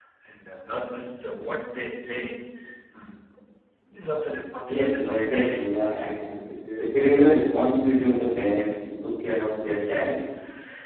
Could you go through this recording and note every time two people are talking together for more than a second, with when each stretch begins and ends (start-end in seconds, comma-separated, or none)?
4.7-6.1